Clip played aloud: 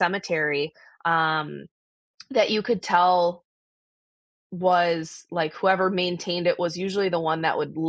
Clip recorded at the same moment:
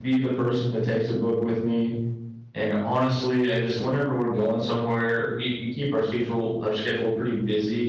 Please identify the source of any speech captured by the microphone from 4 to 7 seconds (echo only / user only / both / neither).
user only